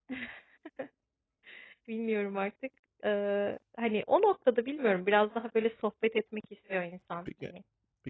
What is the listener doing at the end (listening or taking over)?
taking over